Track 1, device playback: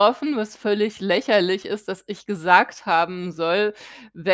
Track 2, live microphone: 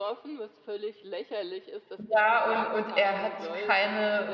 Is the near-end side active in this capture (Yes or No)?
Yes